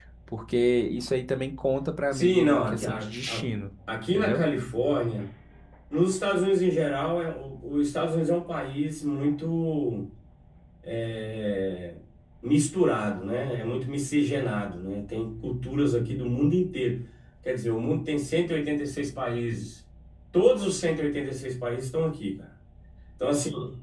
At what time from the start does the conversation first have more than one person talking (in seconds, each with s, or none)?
2.1 s